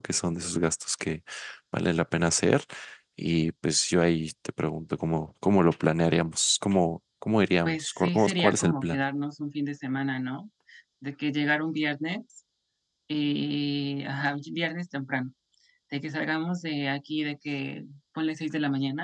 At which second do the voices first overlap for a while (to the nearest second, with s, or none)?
8 s